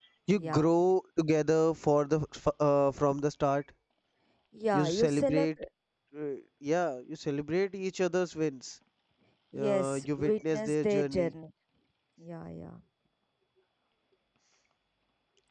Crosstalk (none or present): present